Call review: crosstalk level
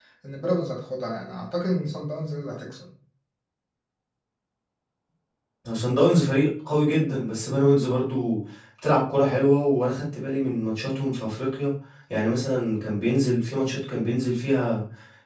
none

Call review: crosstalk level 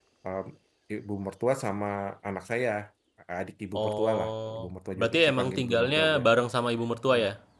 present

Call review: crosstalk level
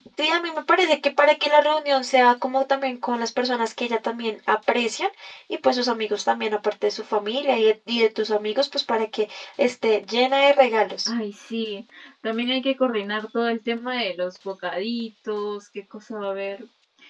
none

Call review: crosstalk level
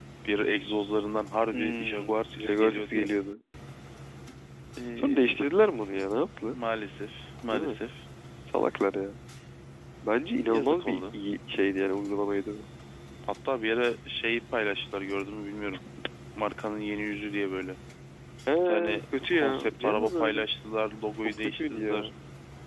present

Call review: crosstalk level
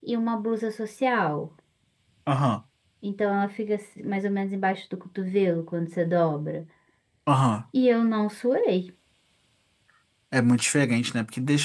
none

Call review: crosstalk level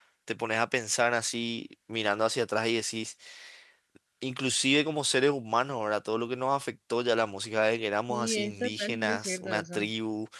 present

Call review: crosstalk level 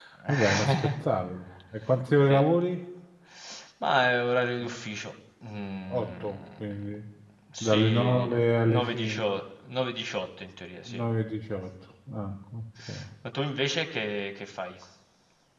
present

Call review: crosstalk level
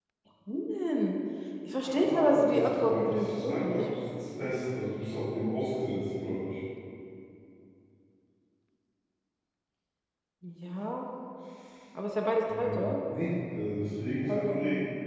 present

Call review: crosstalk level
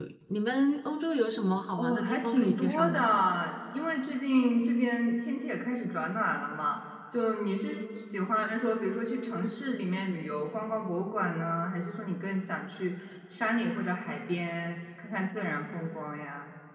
present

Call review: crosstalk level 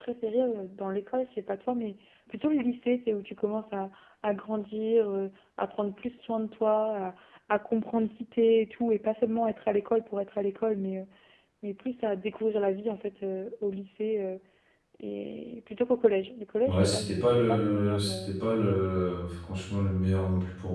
present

